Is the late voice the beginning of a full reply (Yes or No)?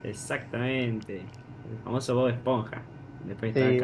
Yes